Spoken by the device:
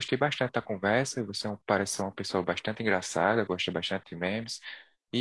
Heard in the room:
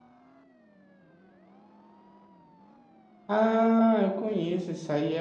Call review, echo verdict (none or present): none